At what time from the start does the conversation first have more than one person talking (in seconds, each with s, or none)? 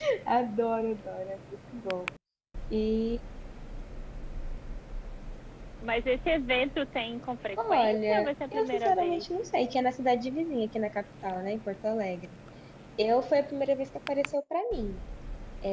7.6 s